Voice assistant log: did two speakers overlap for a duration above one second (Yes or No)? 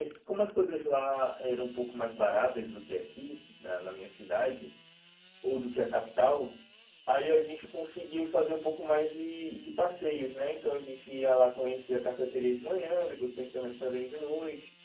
No